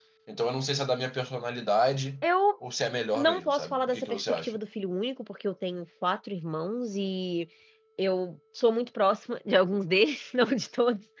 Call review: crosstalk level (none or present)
present